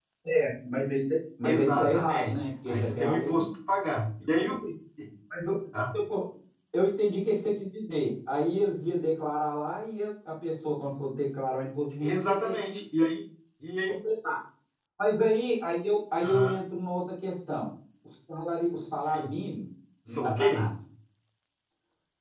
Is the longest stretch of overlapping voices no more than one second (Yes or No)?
No